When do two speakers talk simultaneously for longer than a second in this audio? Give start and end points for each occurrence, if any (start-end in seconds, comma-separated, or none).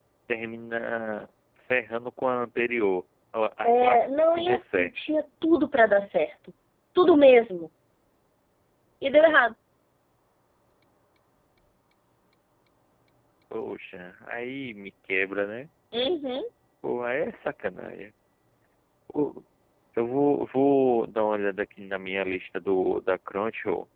3.6-4.9